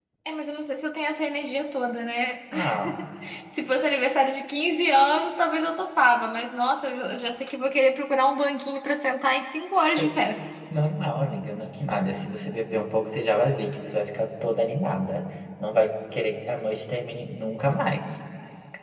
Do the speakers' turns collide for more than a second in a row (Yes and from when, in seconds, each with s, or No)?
No